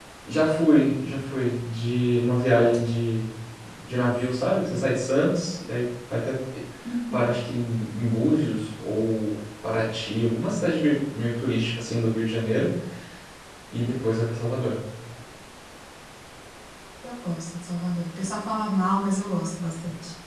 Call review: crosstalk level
none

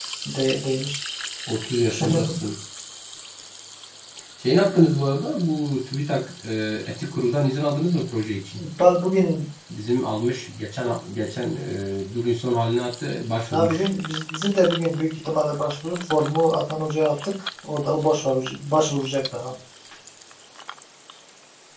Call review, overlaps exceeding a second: none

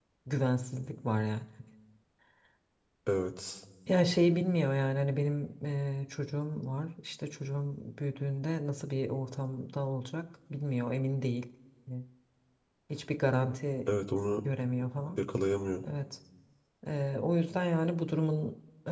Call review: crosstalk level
none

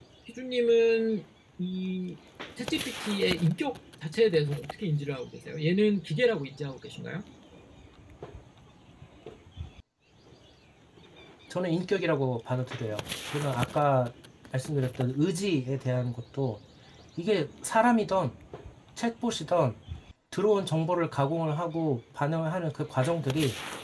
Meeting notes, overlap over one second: none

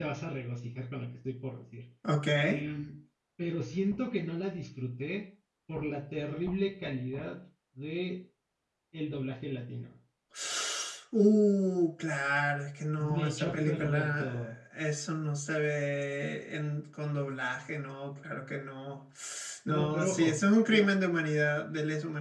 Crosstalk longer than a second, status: present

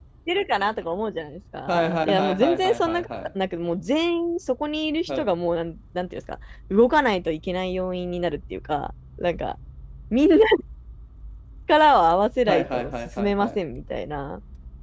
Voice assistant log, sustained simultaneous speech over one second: present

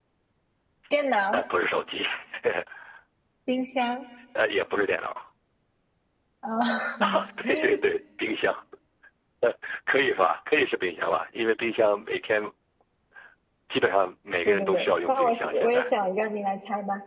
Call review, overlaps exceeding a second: present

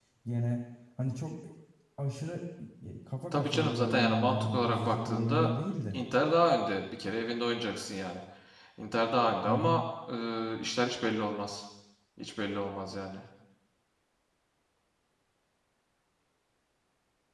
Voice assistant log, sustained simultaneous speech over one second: present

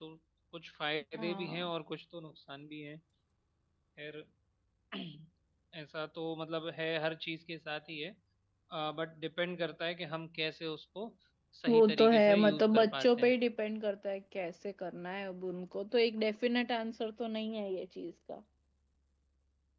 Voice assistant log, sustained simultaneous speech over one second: present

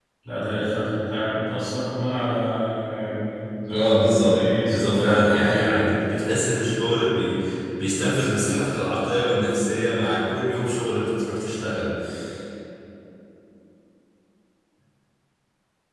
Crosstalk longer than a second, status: present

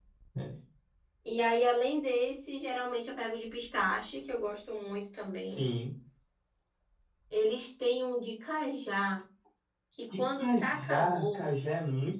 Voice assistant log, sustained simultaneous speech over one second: present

